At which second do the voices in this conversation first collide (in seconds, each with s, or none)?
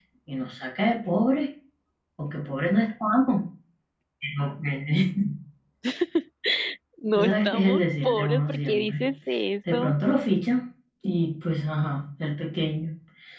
7.2 s